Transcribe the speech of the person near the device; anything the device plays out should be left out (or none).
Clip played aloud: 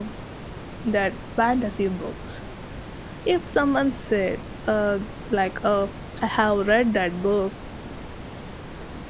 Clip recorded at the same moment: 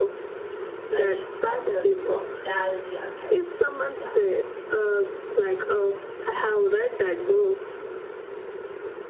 I mean, some no- nostalgia therapy. Yeah.